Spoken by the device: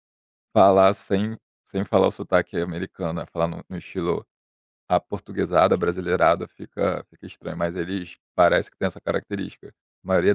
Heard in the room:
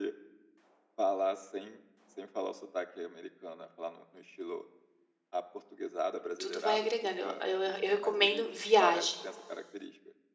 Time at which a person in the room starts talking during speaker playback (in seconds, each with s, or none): 6.4 s